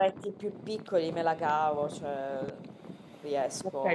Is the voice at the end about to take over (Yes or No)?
Yes